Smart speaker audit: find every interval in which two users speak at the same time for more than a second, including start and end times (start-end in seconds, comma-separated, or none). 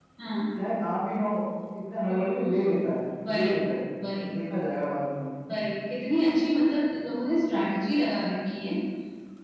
none